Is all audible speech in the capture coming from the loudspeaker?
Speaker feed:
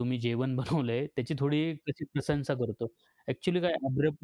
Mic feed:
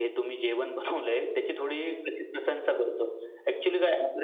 Yes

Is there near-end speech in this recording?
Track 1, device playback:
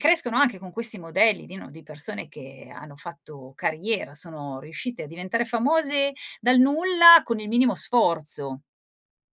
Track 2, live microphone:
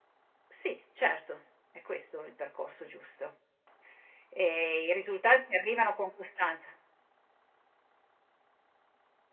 Yes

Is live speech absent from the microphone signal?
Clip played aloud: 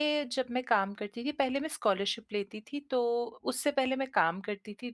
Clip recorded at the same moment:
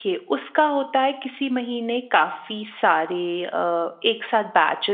No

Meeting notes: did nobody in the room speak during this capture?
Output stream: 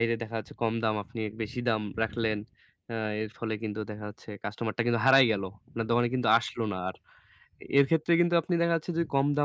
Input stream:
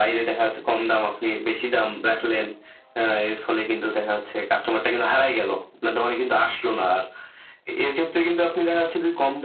Yes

